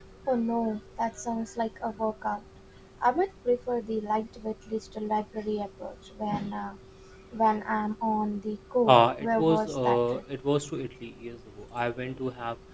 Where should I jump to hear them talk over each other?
8.9 s

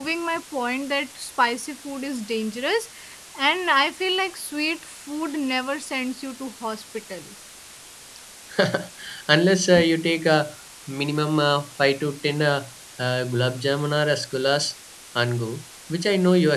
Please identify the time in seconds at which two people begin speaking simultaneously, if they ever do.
none

